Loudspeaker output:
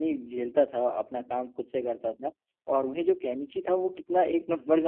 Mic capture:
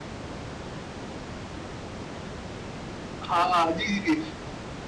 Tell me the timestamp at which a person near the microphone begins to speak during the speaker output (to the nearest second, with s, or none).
3 s